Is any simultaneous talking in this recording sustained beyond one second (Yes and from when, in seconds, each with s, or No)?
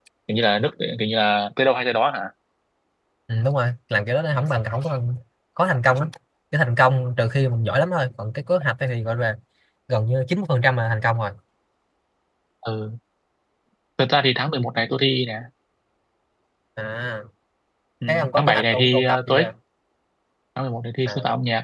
Yes, from 18.1 s